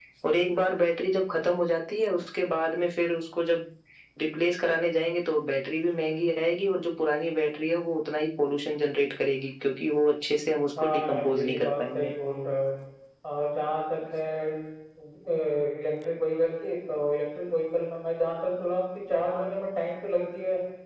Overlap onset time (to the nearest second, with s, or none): 11 s